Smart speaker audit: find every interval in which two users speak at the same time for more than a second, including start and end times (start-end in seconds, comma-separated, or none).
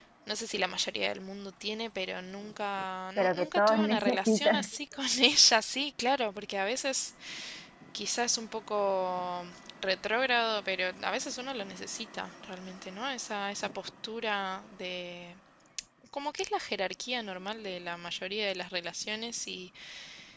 3.2-4.7